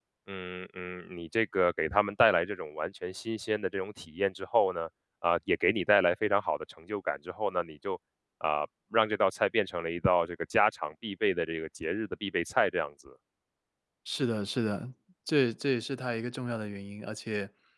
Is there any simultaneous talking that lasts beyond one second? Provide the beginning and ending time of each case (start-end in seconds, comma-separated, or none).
none